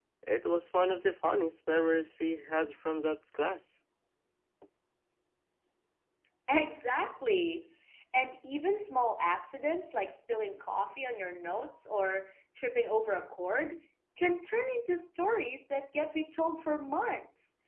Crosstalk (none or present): none